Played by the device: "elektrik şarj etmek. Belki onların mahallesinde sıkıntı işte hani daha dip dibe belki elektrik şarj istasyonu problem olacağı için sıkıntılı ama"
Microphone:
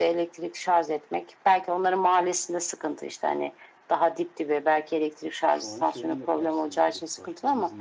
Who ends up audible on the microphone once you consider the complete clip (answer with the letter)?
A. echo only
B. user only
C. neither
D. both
D